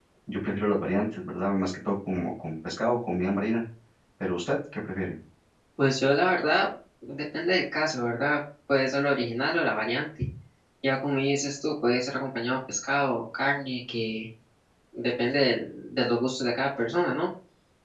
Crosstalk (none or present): none